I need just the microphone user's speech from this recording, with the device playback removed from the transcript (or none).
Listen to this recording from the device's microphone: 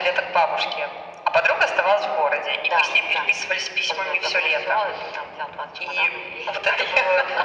none